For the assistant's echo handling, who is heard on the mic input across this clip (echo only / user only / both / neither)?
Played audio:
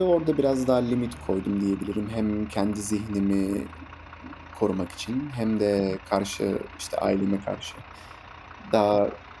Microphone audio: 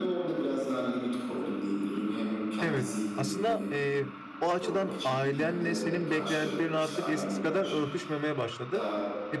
both